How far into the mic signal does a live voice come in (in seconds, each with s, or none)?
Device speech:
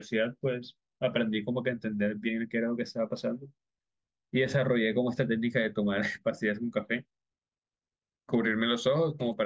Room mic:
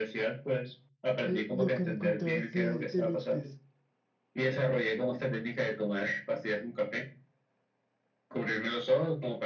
1.2 s